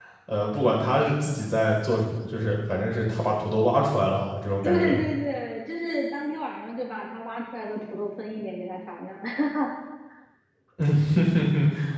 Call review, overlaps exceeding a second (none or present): none